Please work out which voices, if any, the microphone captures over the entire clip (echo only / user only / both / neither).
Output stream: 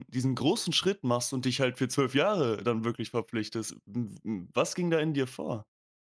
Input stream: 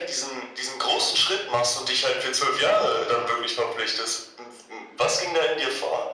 echo only